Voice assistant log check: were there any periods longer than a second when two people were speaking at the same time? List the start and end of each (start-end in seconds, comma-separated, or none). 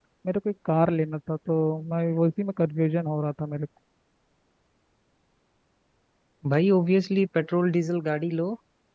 none